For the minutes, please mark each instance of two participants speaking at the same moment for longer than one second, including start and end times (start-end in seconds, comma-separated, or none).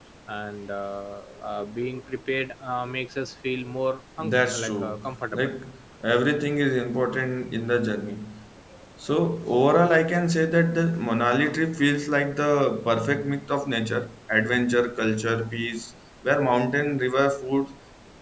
4.2-5.5